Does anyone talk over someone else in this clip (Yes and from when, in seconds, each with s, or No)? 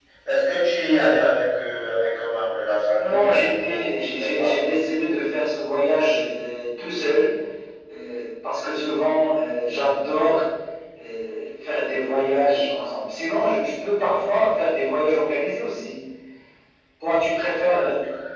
Yes, from 3.0 s